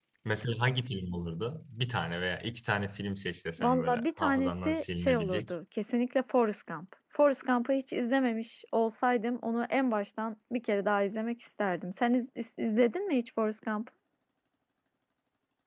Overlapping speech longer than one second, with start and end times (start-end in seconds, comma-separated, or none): 3.6-5.5